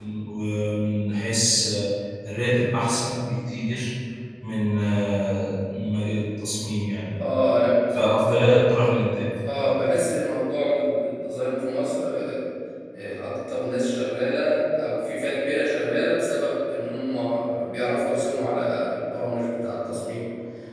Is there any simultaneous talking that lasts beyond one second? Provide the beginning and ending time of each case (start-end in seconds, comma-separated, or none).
none